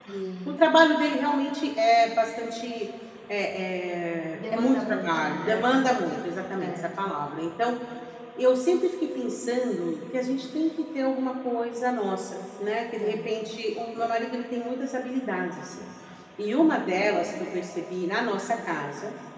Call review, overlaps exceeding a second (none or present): present